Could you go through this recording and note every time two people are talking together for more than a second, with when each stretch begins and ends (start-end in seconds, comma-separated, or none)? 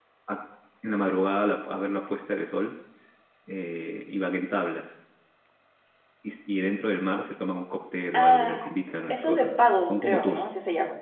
9.1-10.4